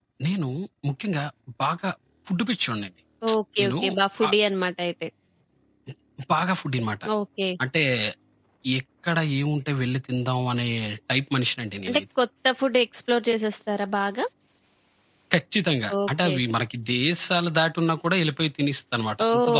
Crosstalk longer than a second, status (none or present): none